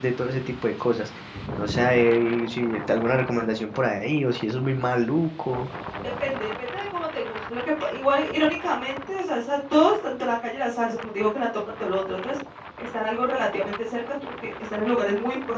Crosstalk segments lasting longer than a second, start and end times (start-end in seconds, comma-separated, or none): none